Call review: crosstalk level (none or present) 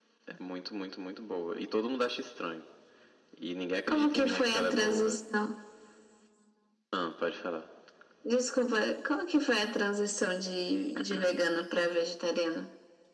present